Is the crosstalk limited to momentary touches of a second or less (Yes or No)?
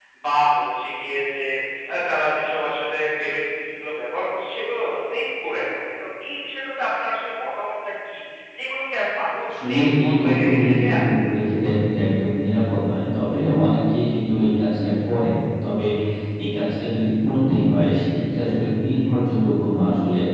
No